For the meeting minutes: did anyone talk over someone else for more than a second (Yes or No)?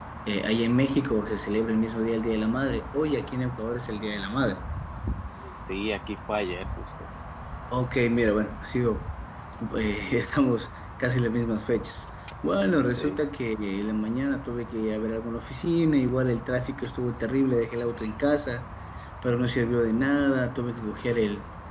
No